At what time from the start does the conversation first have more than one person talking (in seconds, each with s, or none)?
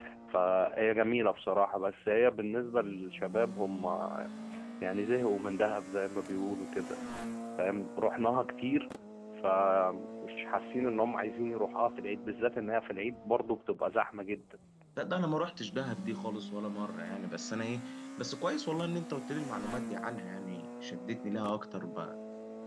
none